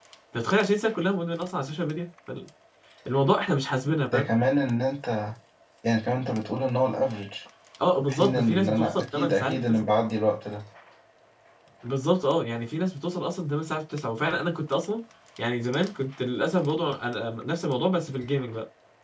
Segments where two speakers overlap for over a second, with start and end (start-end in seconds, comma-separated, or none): 8.1-9.9